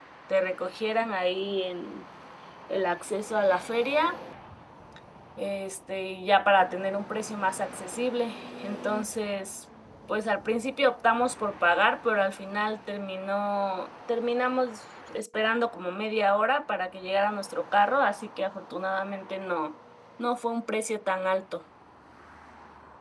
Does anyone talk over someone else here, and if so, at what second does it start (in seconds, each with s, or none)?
none